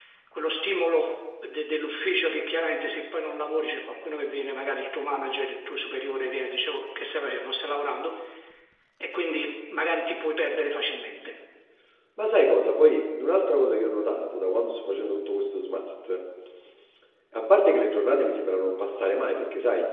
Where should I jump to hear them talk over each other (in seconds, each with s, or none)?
none